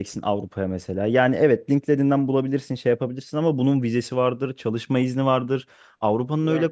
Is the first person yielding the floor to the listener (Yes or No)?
No